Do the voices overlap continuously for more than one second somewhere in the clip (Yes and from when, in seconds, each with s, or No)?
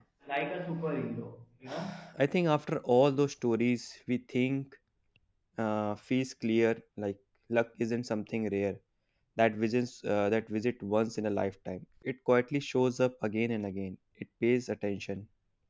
No